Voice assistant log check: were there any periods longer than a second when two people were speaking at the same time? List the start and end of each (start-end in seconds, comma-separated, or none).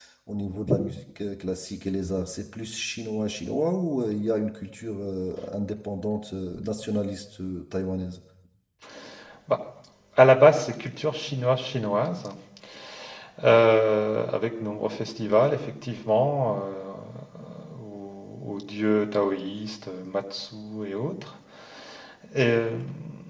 none